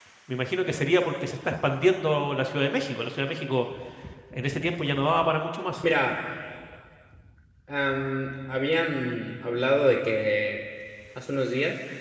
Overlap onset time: none

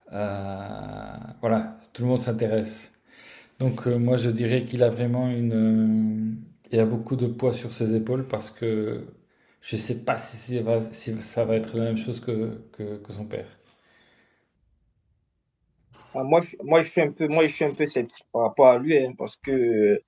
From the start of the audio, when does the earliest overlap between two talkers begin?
none

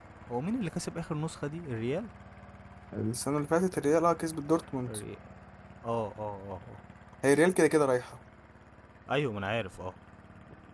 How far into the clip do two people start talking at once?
none

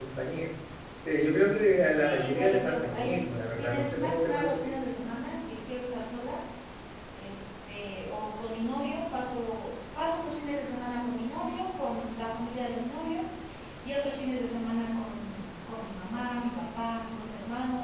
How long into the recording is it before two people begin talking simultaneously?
1.9 s

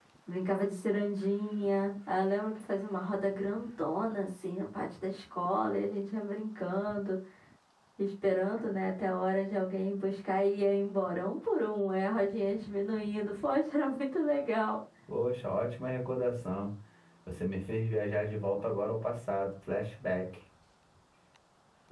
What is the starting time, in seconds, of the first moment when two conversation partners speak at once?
none

